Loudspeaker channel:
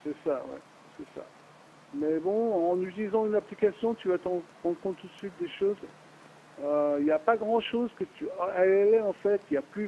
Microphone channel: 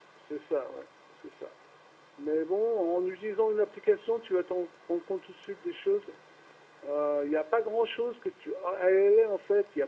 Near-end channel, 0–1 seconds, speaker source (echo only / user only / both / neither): echo only